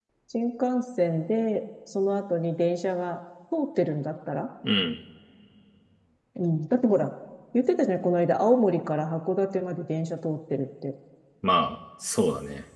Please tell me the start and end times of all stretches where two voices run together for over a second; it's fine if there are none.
none

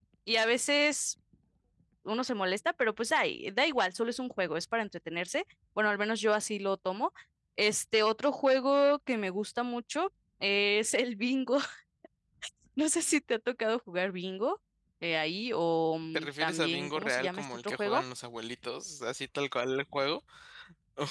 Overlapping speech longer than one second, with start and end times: 16.1-18.0

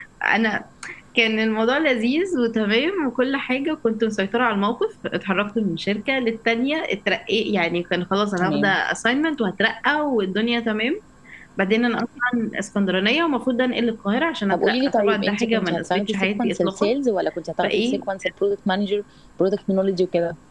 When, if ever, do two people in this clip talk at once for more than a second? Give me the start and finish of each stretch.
14.5-16.9

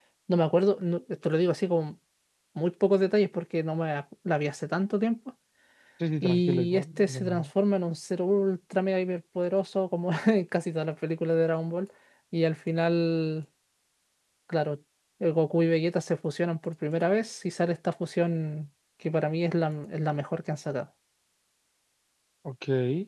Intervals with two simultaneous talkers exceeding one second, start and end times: 6.2-7.5

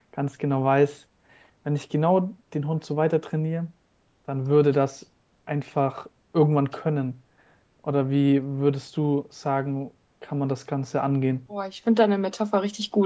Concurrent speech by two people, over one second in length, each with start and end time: none

